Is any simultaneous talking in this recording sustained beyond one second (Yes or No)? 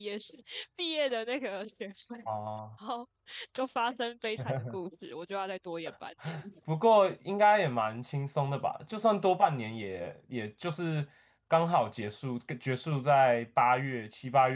No